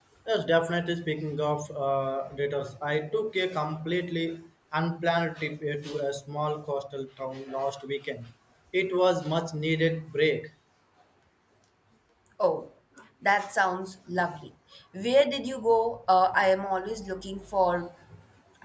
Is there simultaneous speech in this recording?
No

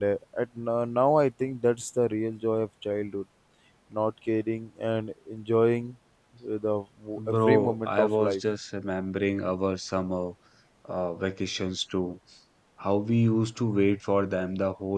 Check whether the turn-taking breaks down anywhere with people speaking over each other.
Yes, from 7.2 s

